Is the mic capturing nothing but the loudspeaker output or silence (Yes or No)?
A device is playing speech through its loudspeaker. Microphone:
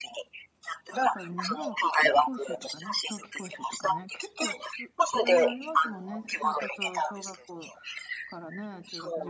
No